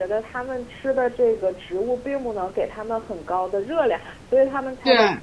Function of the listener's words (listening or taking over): listening